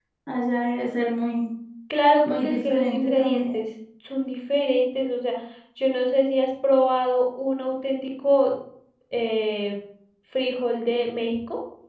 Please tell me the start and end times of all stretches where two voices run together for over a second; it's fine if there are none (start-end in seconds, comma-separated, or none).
2.3-3.6